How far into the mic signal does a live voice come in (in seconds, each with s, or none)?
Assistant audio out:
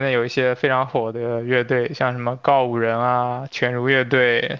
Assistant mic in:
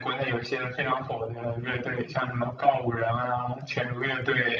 none